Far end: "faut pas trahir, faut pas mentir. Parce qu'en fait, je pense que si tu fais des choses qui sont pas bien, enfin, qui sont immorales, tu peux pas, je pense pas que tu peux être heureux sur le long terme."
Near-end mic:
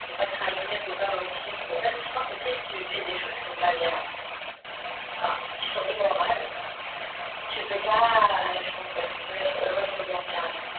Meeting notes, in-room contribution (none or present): none